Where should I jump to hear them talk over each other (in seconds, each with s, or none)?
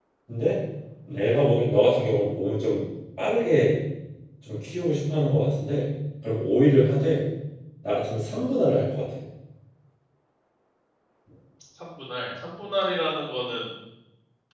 none